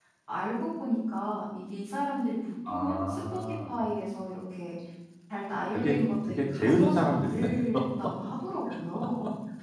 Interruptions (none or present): present